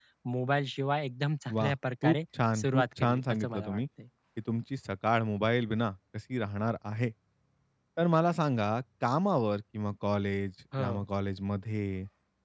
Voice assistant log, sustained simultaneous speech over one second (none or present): present